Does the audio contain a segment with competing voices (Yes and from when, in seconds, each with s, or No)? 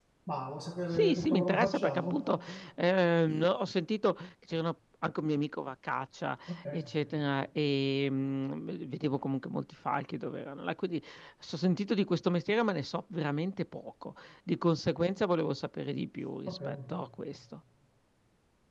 Yes, from 0.9 s